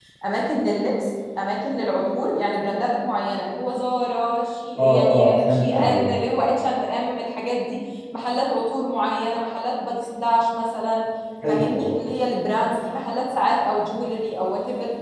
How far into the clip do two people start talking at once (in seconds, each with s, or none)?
4.8 s